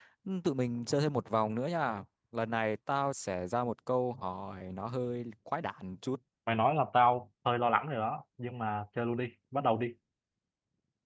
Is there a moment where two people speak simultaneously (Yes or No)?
No